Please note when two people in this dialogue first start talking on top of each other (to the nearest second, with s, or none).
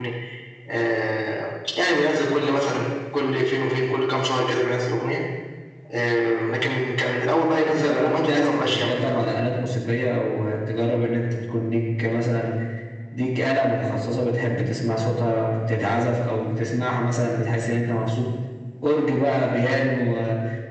8 s